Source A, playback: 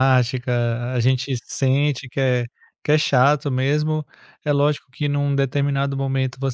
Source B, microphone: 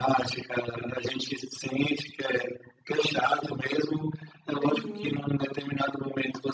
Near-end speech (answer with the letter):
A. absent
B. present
B